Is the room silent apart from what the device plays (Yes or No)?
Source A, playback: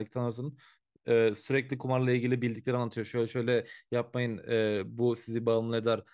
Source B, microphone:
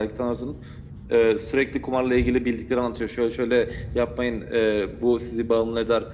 Yes